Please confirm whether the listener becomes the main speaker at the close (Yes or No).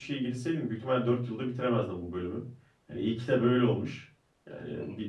No